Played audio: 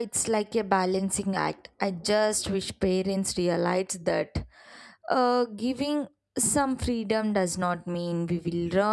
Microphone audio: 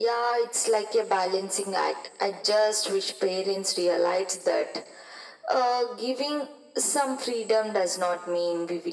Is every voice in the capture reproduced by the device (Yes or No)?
Yes